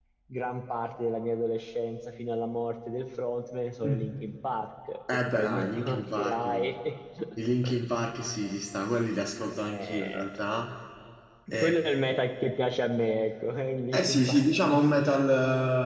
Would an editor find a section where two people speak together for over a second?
Yes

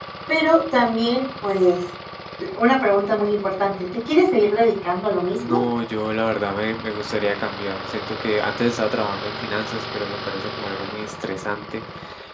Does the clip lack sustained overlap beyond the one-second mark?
Yes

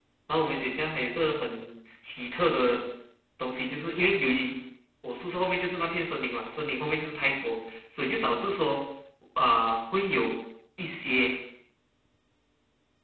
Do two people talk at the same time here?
No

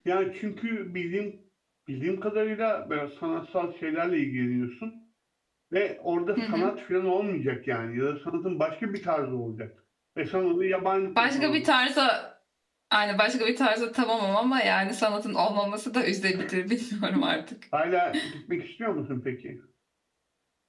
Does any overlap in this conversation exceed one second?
No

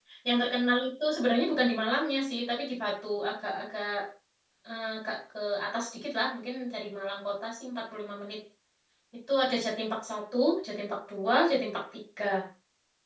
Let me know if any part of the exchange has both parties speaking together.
No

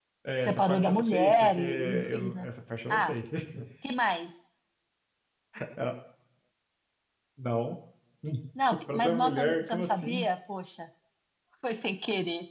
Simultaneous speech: Yes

